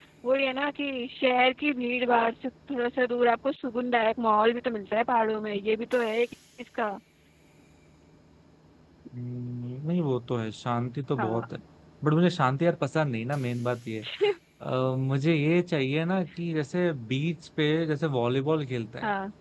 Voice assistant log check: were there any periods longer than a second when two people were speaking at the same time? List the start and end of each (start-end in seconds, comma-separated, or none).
none